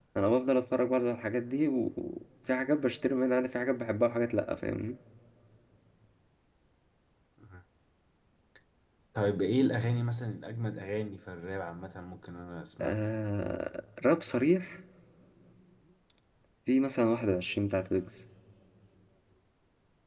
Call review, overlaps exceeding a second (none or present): none